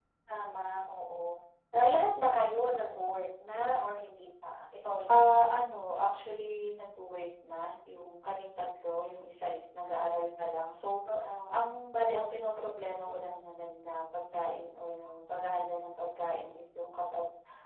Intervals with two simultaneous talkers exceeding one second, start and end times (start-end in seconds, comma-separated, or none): none